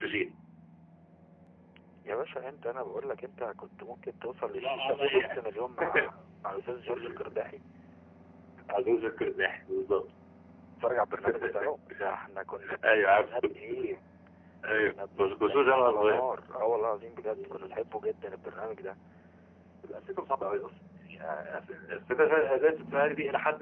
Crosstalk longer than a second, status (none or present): present